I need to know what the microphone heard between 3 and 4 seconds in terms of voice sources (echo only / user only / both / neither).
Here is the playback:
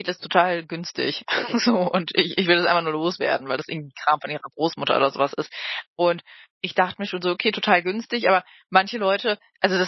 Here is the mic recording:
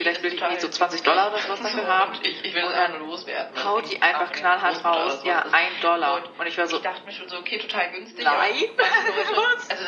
both